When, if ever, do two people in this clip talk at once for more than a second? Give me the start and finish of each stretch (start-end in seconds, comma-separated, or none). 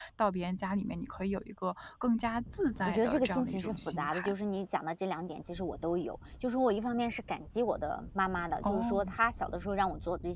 2.9-4.3